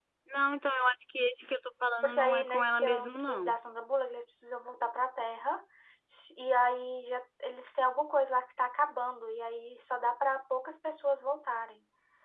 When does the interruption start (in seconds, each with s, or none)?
2.0 s